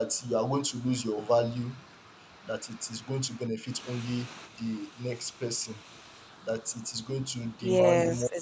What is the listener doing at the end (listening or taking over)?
taking over